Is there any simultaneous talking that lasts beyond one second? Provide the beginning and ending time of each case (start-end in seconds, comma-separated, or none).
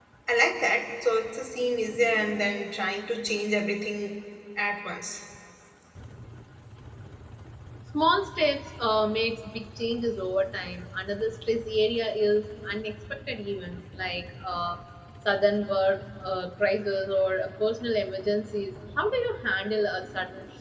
none